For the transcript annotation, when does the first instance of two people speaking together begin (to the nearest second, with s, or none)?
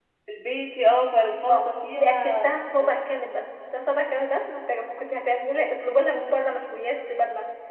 1 s